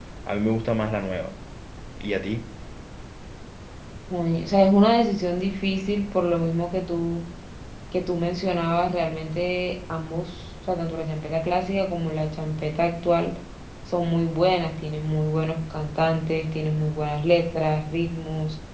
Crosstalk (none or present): none